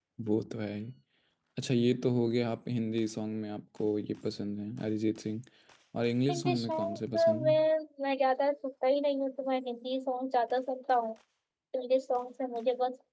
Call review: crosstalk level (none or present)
present